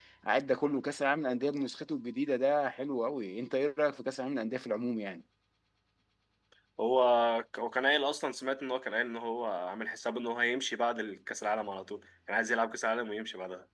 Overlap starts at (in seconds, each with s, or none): none